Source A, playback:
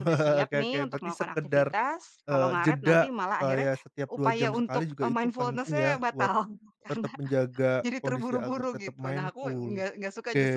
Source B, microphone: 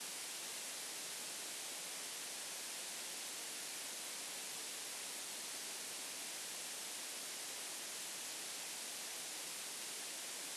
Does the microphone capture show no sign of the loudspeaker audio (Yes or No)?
Yes